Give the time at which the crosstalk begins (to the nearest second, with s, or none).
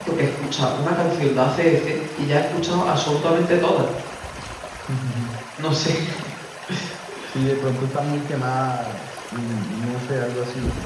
none